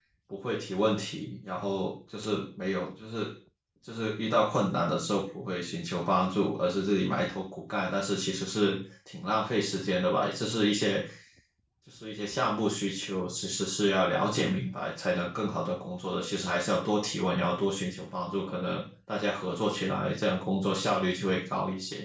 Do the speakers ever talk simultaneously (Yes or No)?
No